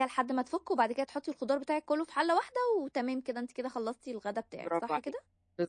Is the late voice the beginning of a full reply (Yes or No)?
Yes